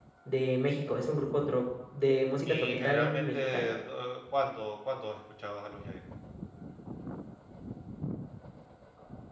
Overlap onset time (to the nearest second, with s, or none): 2 s